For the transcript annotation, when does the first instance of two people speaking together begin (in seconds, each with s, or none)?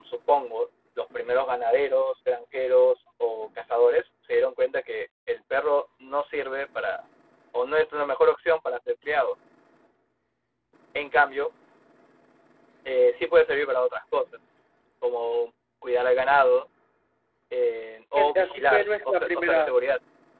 18.2 s